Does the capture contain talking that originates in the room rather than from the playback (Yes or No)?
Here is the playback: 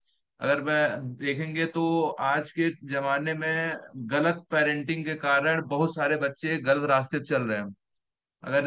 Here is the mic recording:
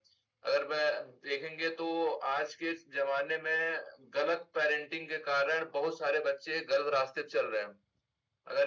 No